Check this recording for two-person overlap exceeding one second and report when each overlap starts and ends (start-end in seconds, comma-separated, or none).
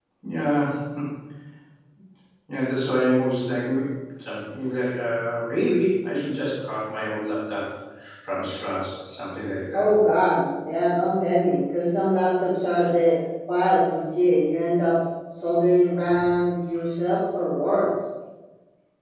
none